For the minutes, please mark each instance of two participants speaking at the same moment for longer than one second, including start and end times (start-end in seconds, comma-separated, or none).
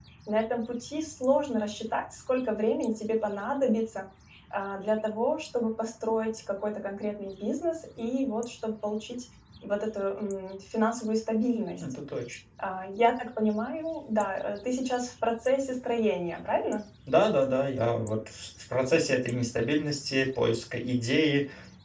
none